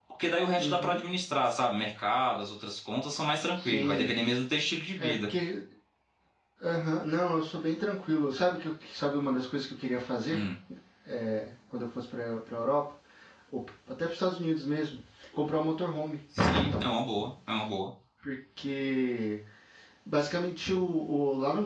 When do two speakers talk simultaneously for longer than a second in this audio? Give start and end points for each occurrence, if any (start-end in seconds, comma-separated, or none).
none